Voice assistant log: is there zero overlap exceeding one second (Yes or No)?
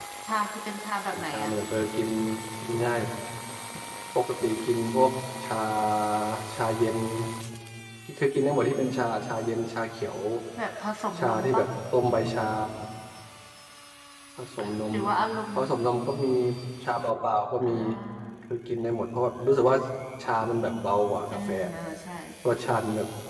Yes